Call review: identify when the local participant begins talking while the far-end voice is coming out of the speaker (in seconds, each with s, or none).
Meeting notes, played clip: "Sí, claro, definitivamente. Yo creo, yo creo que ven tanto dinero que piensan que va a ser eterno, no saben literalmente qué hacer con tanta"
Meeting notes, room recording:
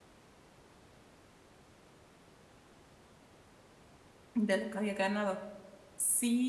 4.3 s